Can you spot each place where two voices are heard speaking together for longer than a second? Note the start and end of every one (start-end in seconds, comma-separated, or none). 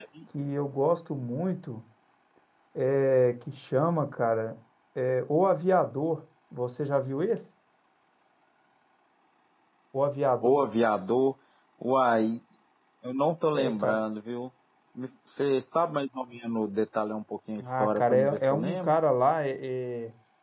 17.6-18.9